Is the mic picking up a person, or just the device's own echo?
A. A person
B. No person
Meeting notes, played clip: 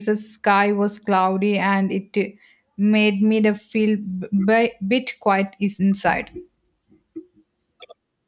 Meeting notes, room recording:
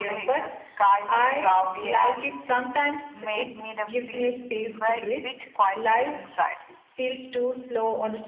A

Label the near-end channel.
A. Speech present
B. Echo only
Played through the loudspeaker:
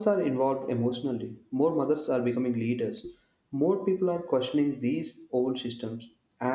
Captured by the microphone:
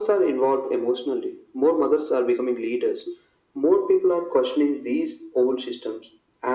B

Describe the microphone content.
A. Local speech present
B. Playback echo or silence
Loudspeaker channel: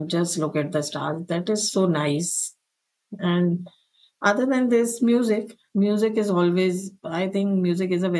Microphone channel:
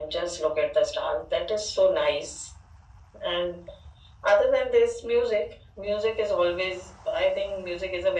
B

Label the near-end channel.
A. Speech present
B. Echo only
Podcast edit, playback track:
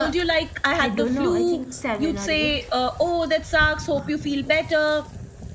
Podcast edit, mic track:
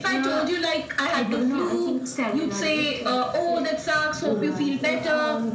A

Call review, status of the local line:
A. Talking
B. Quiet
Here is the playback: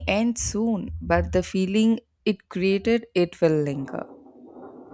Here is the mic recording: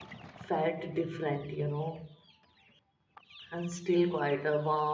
A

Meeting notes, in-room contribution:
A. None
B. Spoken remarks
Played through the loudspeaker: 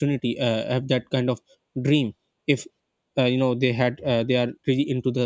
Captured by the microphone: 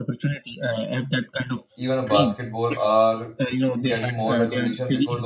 B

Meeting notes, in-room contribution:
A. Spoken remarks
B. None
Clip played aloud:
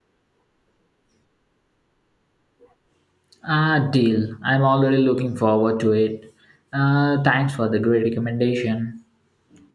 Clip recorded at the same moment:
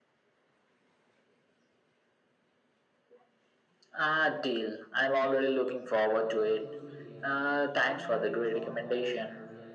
A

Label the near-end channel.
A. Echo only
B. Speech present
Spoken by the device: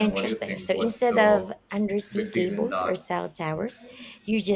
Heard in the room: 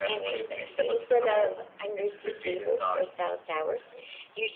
A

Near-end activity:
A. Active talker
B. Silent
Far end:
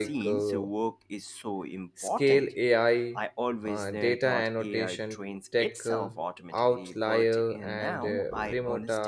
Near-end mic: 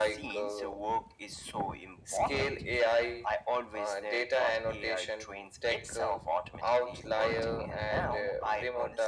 B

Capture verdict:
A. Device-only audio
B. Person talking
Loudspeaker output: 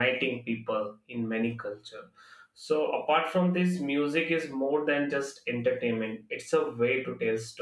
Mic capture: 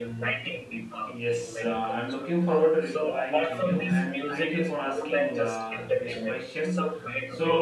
B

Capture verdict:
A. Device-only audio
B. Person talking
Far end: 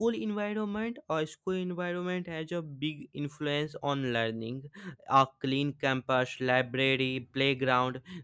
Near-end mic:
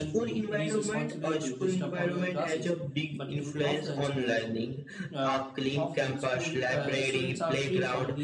B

